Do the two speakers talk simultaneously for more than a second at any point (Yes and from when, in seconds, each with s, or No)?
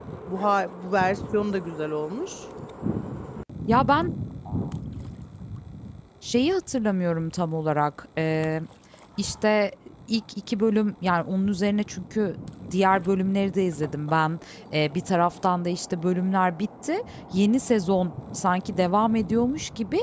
No